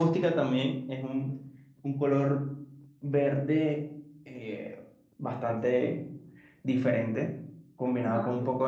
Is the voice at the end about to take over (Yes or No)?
No